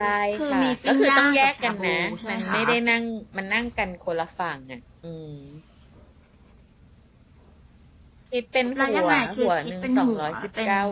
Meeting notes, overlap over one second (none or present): present